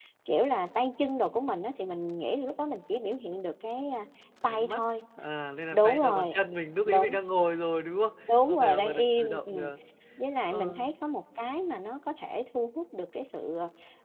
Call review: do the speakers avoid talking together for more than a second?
No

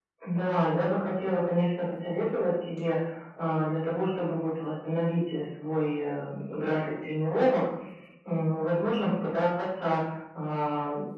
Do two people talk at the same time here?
No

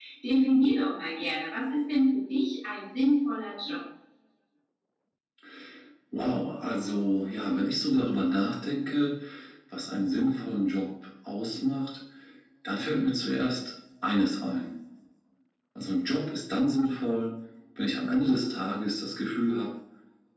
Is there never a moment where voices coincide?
Yes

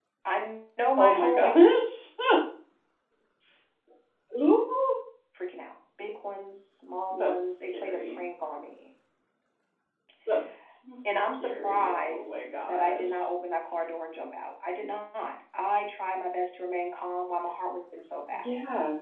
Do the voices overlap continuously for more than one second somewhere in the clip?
Yes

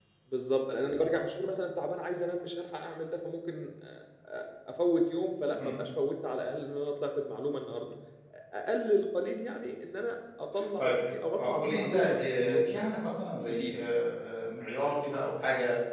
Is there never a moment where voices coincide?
No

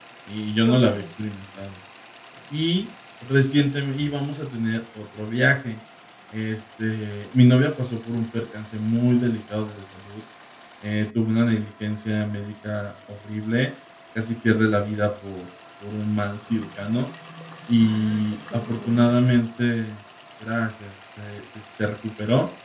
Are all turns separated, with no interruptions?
No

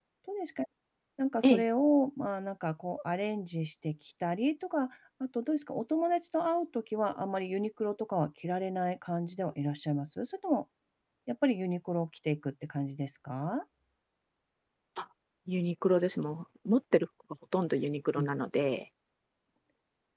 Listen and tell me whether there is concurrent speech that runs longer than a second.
No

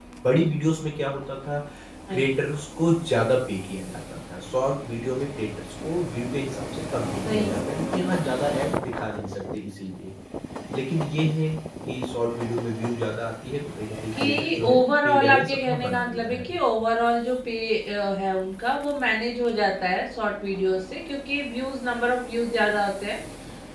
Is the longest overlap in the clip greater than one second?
Yes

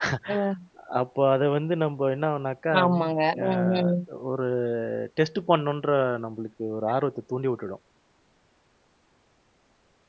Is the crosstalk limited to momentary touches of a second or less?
Yes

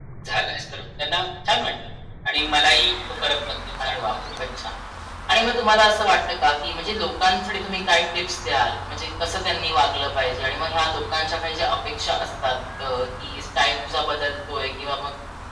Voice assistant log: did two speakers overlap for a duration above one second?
No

